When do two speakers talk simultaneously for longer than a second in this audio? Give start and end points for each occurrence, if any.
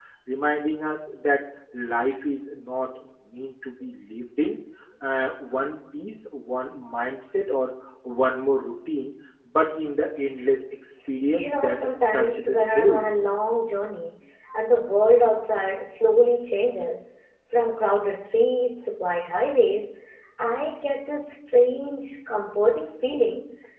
11.4-12.9

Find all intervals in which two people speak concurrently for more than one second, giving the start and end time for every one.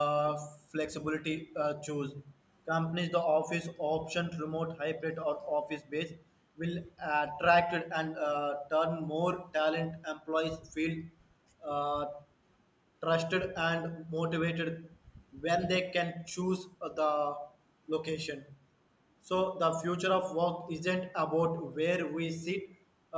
none

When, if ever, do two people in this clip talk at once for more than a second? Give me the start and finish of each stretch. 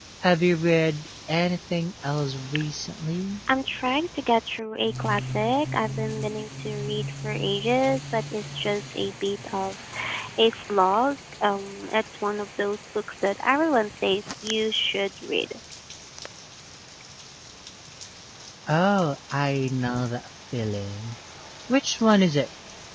none

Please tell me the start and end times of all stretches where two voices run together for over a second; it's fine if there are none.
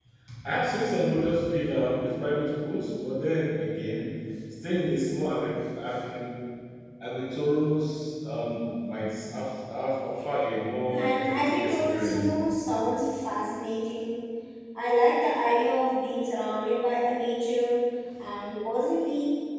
10.9-12.3

